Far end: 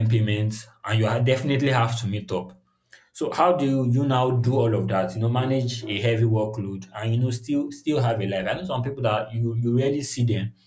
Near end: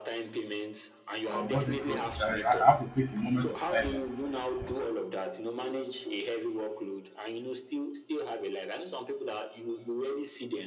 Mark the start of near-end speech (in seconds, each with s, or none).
1.3 s